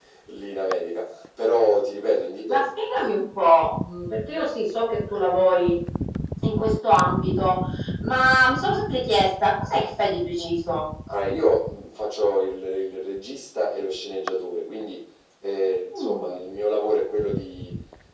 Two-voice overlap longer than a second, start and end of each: none

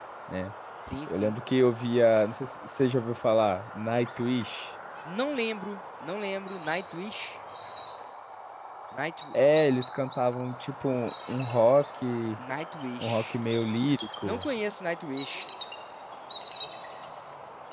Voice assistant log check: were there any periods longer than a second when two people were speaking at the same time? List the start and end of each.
none

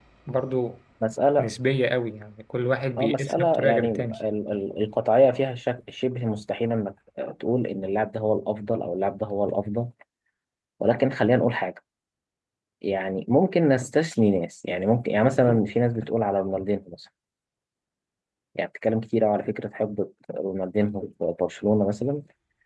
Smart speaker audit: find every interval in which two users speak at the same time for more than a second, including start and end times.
3.0-4.2

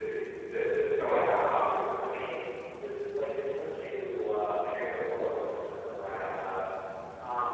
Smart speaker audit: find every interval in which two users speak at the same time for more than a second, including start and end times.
none

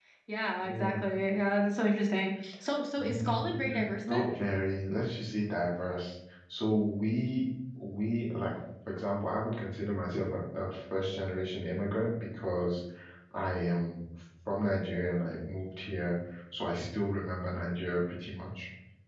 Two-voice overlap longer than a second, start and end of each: 3.0-4.3

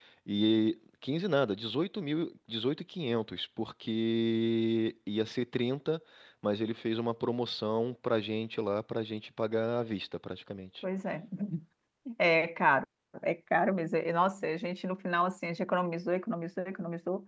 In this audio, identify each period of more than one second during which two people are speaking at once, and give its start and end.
none

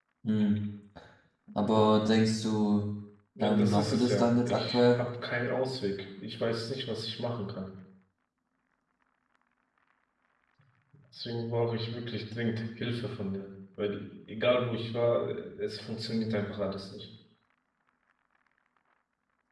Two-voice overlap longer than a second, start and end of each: 3.4-5.0

